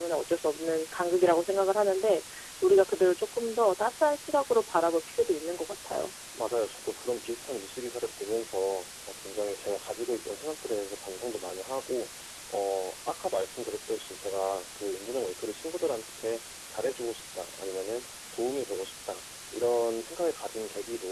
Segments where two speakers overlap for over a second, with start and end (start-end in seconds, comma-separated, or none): none